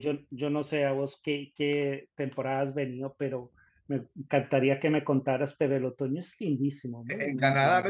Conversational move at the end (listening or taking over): taking over